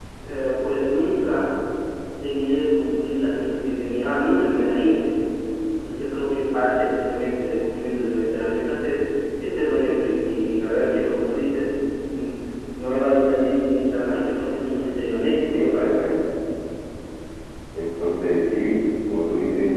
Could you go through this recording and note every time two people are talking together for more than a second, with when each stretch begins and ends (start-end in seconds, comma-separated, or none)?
none